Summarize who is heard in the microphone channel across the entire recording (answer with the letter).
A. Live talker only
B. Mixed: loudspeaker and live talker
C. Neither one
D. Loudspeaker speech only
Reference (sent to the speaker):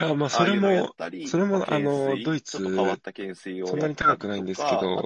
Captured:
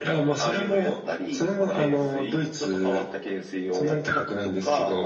D